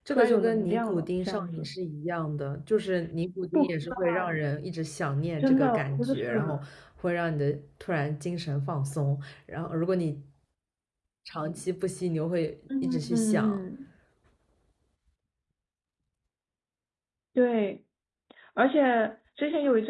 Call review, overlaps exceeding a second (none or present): present